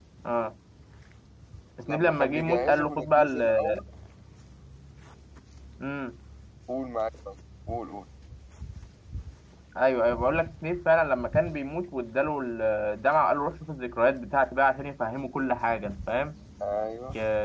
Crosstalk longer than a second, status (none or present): present